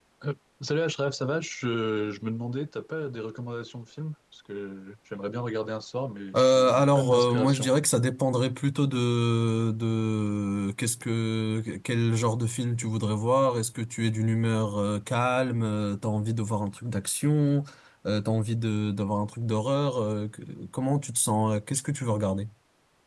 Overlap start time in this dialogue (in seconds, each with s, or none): 6.3 s